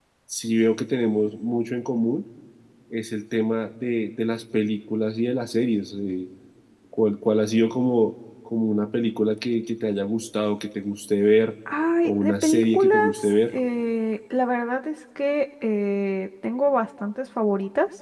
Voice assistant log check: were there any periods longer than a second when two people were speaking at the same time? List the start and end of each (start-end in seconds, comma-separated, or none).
12.0-13.5